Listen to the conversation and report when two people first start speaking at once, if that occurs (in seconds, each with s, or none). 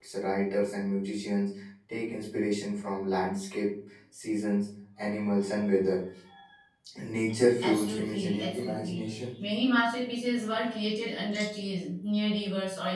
7.6 s